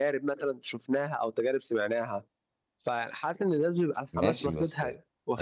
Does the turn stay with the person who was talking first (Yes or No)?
No